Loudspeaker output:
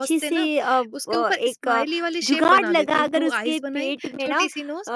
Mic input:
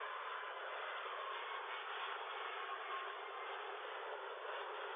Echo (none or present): none